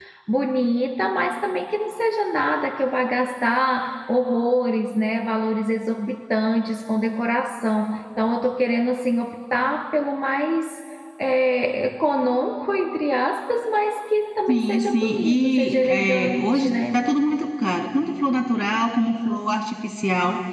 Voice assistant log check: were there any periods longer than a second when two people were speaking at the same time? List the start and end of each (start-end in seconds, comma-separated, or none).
14.5-17.0